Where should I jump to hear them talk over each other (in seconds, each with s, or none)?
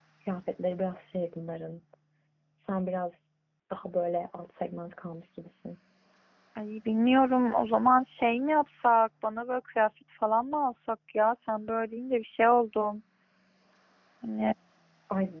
none